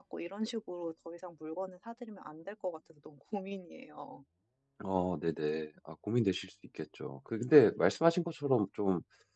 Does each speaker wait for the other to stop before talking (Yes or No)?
Yes